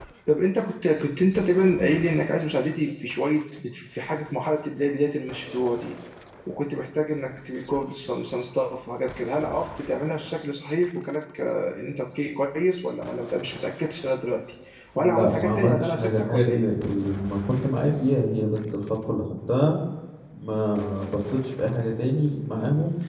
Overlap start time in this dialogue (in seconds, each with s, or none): 14.9 s